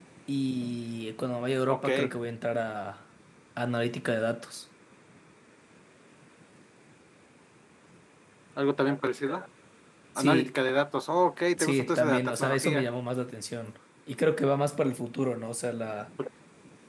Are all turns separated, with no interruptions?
No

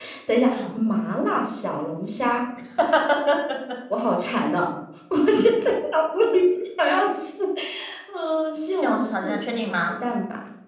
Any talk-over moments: Yes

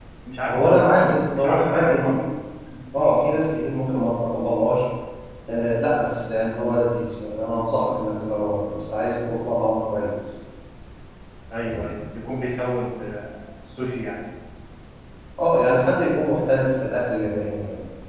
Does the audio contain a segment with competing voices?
Yes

